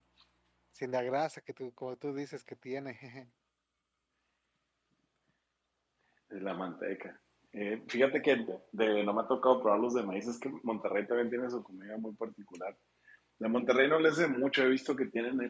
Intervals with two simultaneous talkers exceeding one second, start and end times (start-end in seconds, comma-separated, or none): none